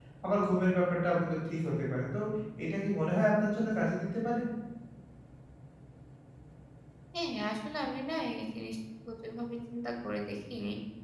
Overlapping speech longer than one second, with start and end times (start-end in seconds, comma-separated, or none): none